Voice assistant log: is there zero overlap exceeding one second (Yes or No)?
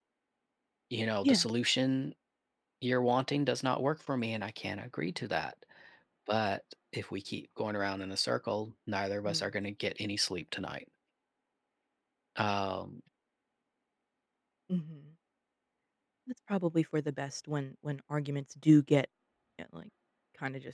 Yes